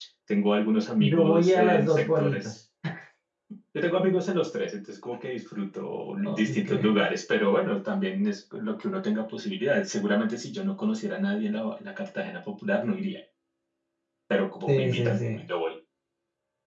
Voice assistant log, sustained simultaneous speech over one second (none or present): present